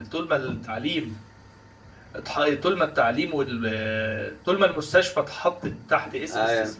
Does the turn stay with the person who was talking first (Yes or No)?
Yes